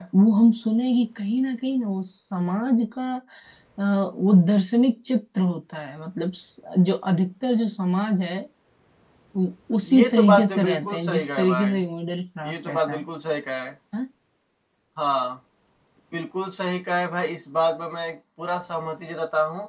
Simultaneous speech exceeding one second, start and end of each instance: 9.8-11.8

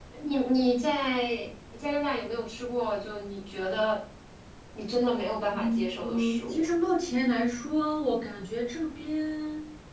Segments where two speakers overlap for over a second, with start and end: 5.5-6.7

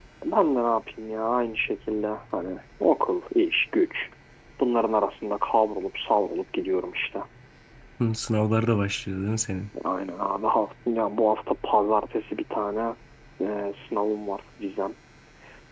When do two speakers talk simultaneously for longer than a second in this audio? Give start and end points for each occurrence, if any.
none

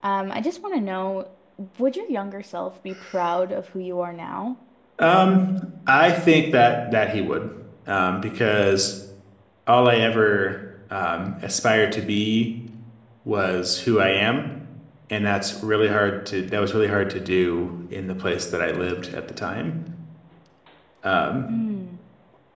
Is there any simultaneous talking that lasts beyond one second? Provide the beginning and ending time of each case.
none

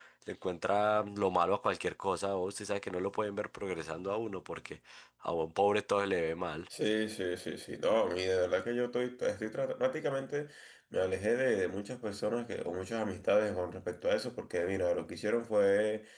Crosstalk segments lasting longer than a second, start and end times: none

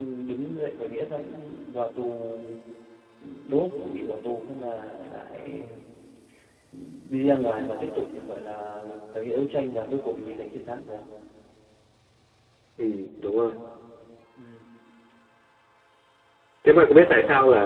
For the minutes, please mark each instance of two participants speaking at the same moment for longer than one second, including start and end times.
none

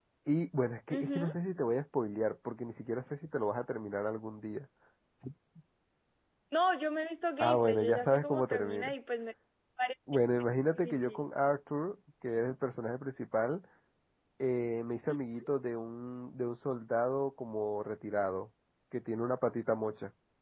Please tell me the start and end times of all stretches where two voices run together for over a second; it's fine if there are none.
7.4-8.9

